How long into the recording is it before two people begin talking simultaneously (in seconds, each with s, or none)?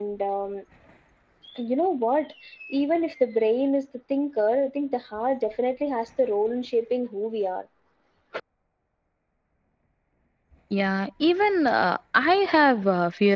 none